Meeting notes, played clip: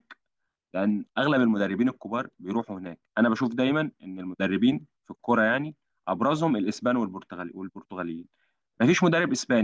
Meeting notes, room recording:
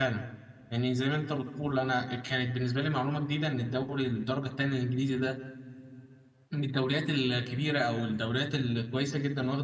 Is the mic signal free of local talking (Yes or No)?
No